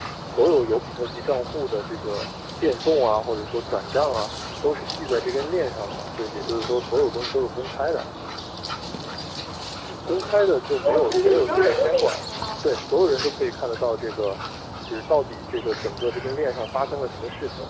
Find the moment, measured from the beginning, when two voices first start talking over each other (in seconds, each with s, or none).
10.8 s